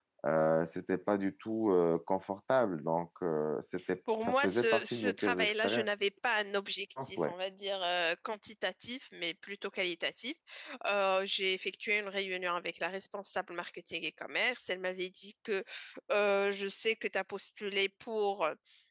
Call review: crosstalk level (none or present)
present